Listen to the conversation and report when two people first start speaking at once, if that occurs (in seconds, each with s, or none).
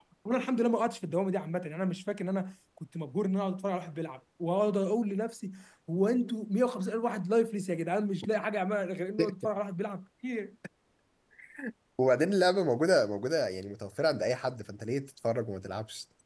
none